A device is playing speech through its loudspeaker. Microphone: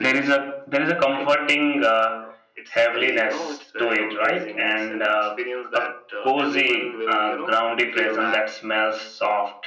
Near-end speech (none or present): present